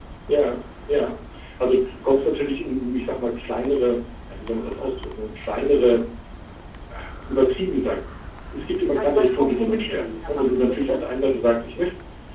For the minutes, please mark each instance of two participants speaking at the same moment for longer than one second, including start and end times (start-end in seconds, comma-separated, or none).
8.9-11.0